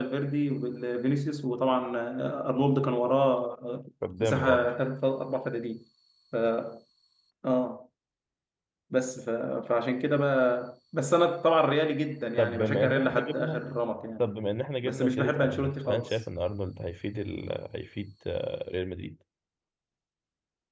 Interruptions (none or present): present